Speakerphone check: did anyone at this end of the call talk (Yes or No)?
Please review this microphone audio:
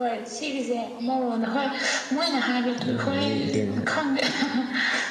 Yes